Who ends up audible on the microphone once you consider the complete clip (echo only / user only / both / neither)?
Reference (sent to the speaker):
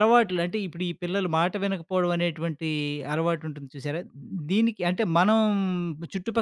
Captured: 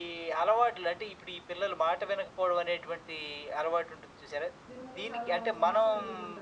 both